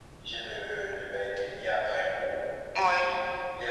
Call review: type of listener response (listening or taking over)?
listening